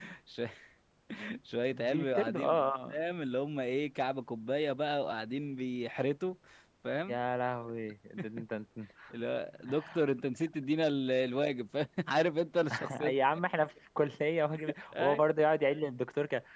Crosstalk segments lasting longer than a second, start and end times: 1.7-3.0

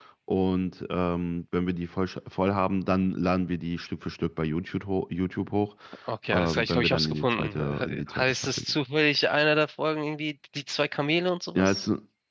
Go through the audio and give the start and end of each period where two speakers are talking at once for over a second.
6.3-8.7

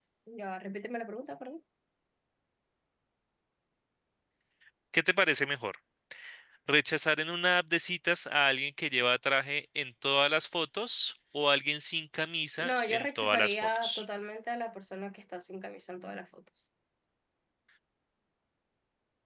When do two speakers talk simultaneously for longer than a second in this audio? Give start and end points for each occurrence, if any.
12.6-14.0

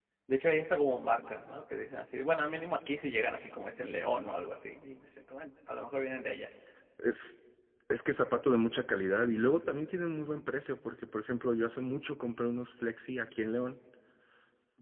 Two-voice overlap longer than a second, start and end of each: none

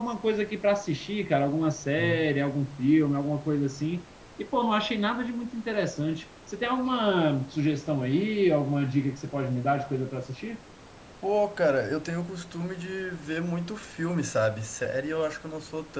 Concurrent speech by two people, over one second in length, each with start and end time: none

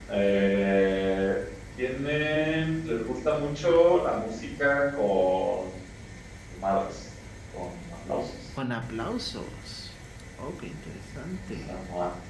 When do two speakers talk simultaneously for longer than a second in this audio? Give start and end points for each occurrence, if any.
none

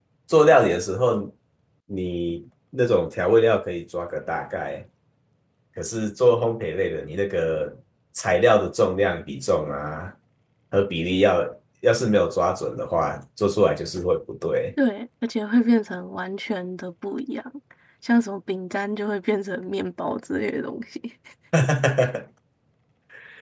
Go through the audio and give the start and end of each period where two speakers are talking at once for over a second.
none

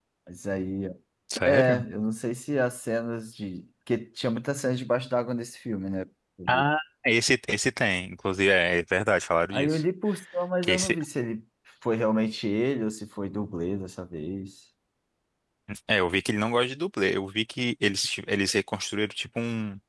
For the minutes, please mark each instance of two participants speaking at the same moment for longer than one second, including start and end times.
none

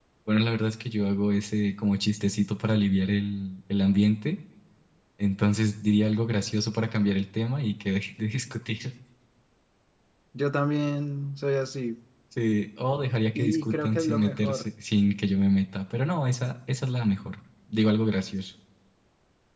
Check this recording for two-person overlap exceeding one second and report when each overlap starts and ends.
13.3-14.7

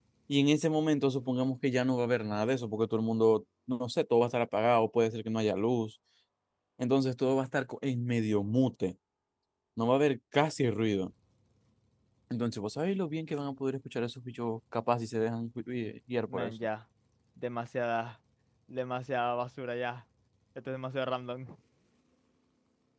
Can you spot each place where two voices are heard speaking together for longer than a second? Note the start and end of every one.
none

